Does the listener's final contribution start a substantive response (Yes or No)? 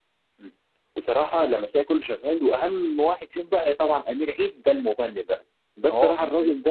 No